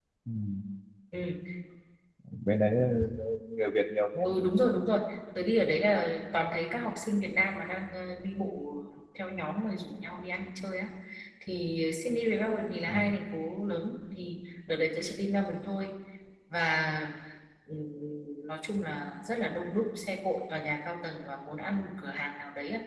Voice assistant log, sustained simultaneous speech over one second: none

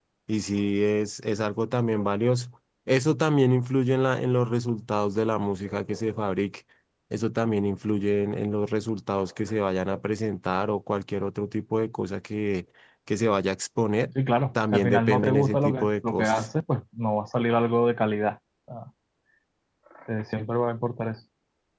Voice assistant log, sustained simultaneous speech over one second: present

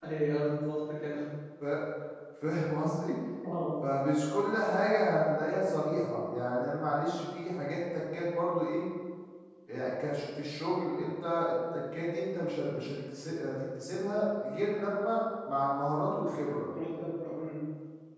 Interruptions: none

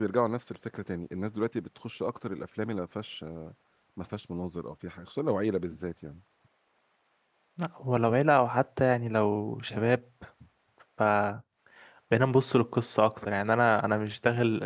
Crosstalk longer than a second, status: none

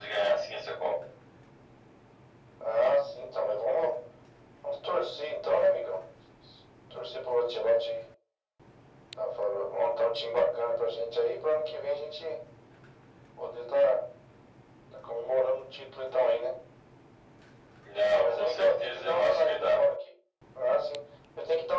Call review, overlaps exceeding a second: present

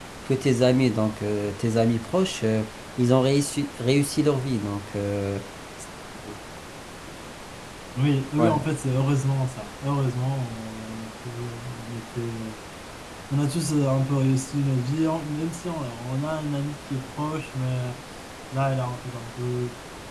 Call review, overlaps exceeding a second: none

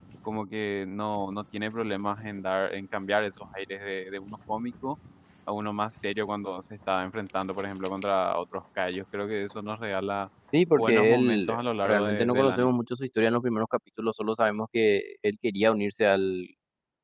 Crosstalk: present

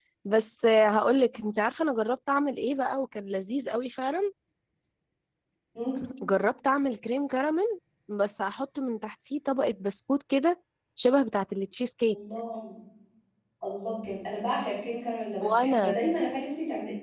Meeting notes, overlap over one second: none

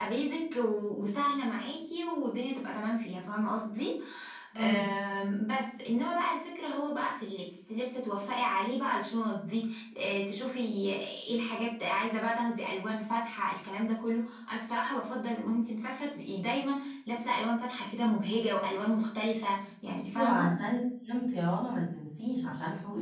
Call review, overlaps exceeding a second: none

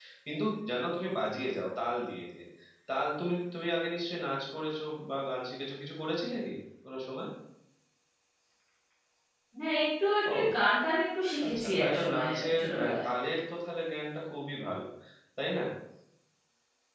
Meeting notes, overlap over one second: present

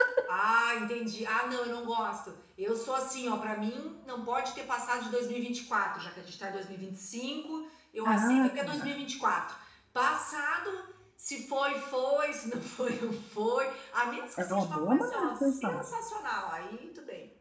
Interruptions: present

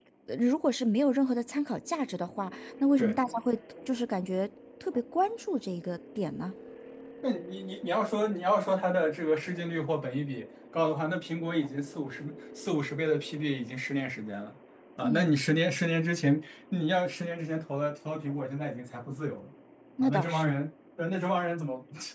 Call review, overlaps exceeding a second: none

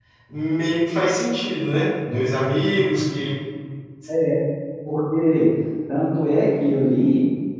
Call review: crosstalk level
none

